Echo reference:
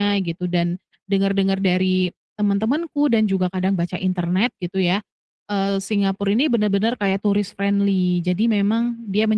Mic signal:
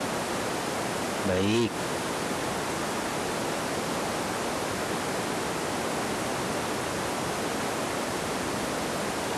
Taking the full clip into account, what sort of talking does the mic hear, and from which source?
user only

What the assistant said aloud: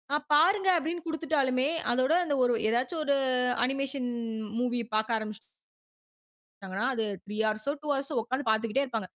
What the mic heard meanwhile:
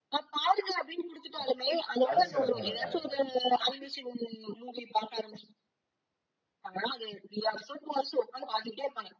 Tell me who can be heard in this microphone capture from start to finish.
both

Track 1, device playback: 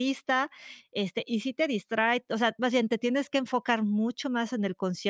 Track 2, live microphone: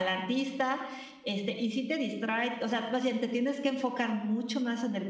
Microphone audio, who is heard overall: echo only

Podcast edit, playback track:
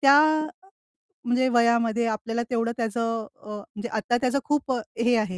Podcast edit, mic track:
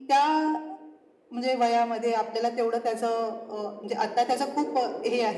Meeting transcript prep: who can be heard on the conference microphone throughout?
echo only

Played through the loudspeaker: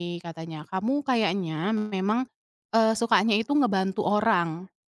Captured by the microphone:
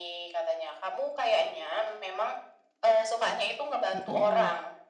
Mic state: both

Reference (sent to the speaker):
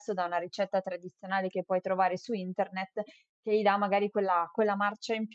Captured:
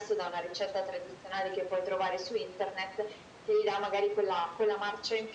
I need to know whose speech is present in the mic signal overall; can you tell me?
echo only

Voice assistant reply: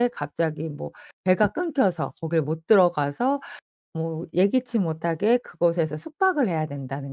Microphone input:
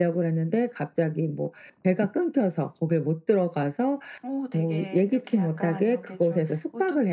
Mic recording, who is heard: both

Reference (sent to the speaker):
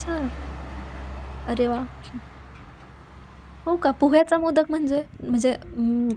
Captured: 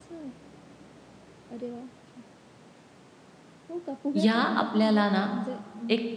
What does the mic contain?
both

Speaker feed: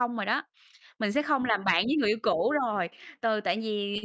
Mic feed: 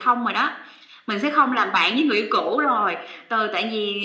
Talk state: echo only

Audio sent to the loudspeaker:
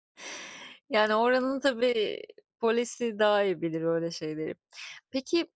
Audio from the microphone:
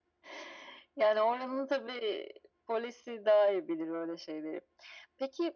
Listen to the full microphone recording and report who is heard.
echo only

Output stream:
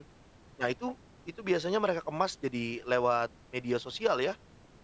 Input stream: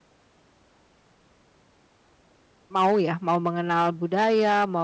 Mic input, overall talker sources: user only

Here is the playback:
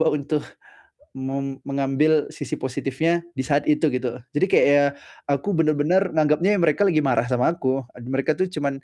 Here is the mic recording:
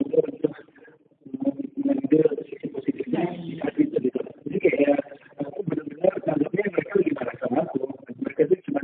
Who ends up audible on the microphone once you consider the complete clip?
both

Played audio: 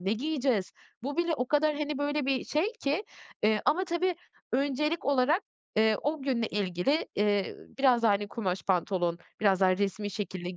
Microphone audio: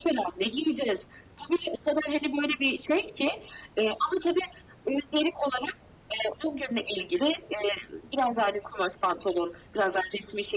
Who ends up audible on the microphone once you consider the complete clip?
echo only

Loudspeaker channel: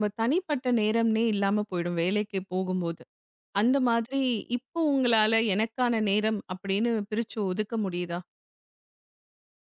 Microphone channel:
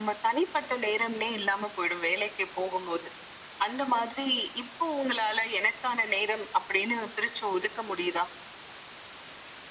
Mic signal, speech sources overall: echo only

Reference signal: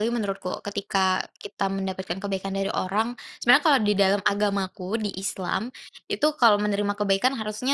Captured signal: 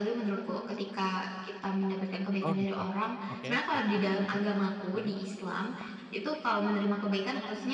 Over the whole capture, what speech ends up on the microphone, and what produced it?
both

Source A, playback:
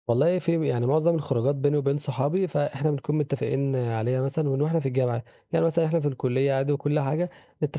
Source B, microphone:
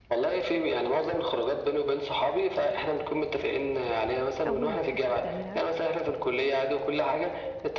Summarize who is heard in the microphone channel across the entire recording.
both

